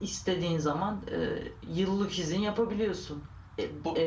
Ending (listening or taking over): listening